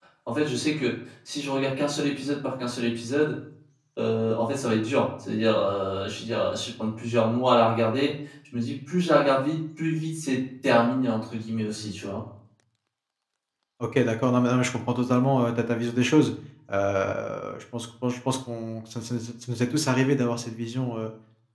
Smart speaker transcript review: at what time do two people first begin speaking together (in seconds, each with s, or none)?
none